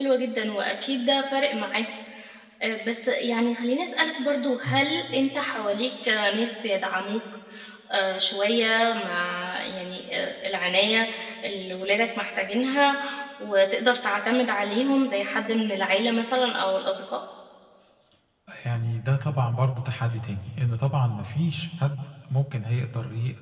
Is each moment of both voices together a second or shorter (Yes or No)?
Yes